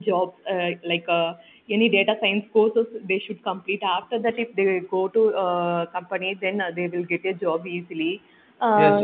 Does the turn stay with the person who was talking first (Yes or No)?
No